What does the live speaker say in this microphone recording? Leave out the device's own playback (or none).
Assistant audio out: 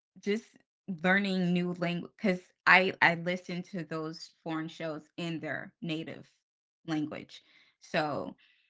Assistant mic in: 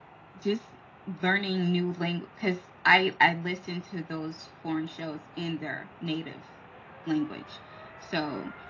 none